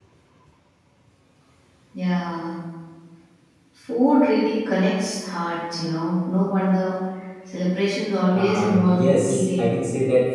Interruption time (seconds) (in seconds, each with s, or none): 8.3 s